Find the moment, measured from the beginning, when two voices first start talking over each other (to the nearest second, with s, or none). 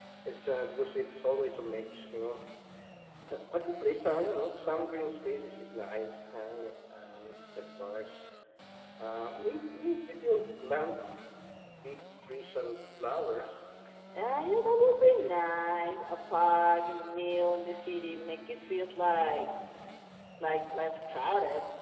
none